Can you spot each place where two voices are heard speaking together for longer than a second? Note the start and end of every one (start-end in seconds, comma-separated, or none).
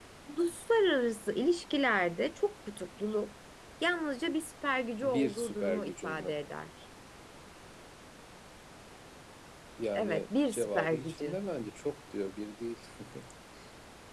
5.0-6.3, 9.9-11.4